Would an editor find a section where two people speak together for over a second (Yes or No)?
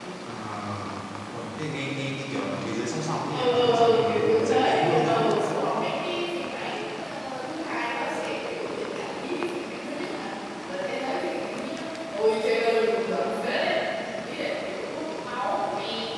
Yes